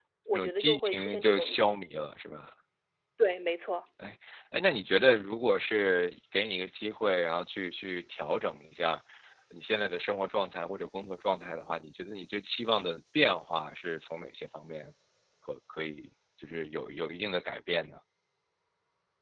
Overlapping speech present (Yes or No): Yes